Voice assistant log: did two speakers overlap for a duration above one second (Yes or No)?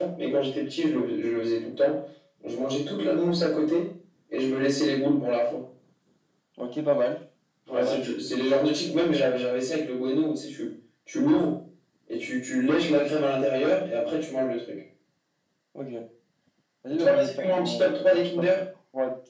Yes